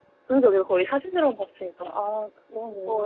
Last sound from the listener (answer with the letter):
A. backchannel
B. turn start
B